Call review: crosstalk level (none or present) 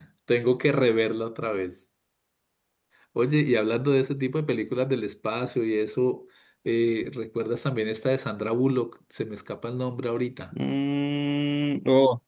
none